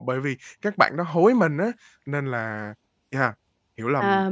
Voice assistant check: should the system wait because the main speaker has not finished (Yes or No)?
No